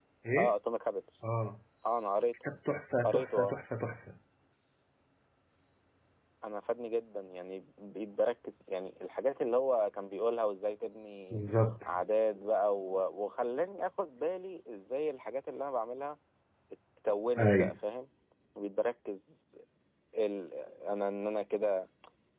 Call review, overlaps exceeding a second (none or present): none